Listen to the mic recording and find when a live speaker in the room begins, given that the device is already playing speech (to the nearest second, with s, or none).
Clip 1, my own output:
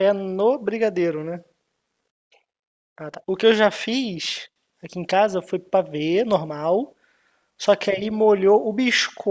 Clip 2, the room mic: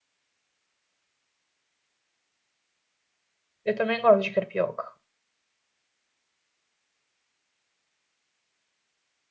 4 s